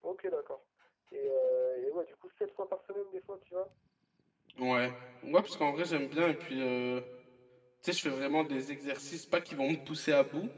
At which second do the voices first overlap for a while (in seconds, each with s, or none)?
none